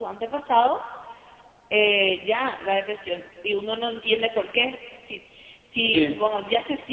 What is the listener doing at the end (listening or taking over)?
listening